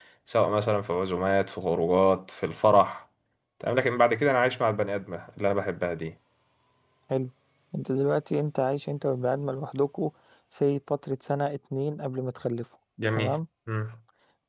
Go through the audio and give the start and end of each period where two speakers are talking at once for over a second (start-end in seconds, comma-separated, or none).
none